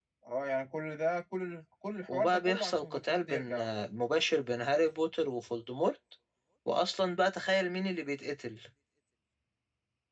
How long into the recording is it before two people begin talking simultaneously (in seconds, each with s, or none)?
2.1 s